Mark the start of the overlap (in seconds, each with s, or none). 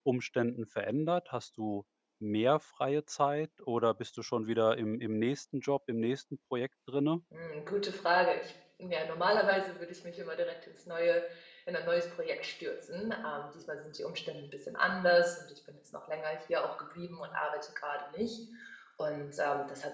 none